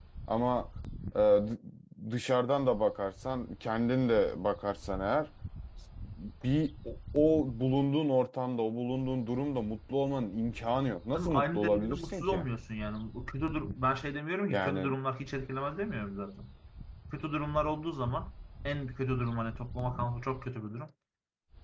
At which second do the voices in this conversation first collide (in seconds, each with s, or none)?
11.1 s